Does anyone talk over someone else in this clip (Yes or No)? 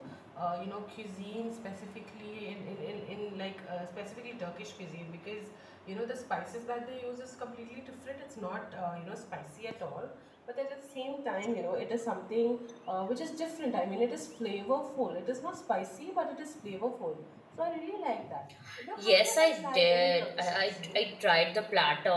Yes